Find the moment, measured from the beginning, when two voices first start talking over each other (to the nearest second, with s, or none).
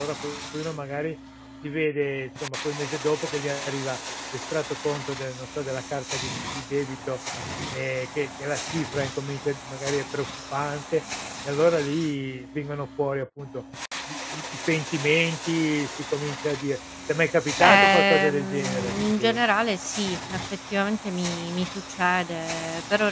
18 s